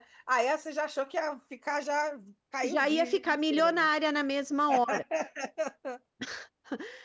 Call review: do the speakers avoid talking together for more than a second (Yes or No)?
No